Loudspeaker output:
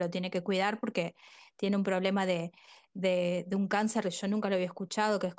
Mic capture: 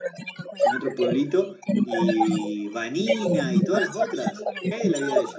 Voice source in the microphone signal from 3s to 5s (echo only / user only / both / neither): both